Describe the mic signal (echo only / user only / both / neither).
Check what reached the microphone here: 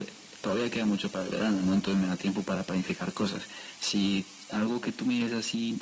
echo only